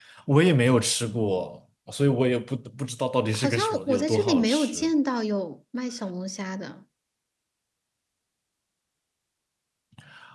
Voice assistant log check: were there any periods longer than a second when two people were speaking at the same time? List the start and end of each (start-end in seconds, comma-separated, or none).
3.3-4.9